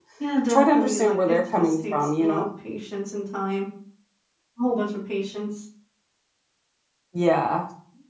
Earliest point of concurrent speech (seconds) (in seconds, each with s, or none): 0.5 s